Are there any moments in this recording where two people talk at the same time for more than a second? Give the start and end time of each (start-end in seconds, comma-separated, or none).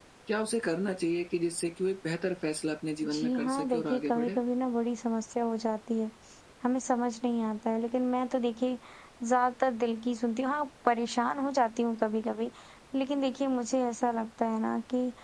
3.1-4.4